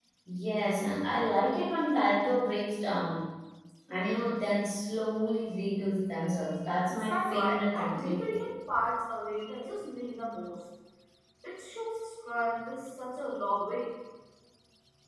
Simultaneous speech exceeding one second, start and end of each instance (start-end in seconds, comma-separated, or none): 6.8-8.4